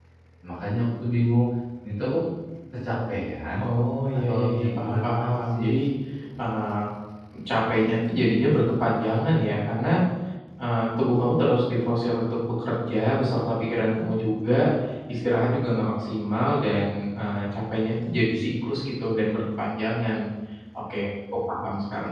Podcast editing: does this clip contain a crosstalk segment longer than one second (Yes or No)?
Yes